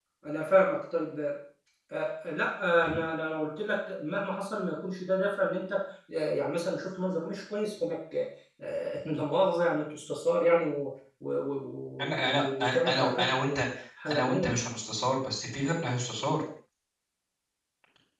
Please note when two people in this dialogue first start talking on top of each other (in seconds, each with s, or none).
12.0 s